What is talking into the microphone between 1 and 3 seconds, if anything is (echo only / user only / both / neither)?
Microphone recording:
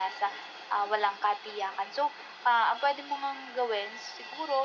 echo only